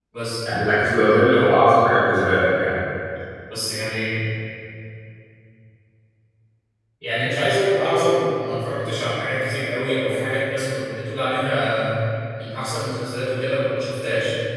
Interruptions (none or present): none